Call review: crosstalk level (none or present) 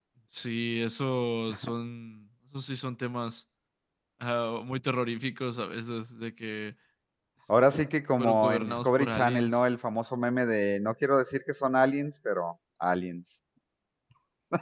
present